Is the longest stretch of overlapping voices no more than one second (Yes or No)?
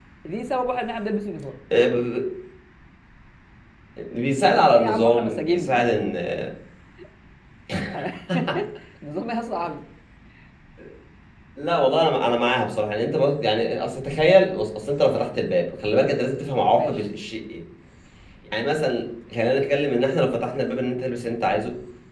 No